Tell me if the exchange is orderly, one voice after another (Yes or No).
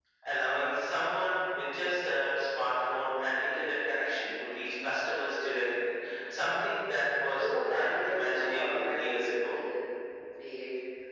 No